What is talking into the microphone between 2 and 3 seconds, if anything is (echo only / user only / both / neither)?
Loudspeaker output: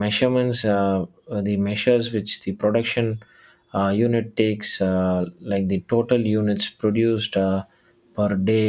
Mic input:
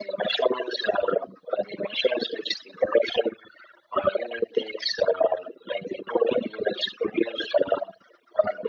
echo only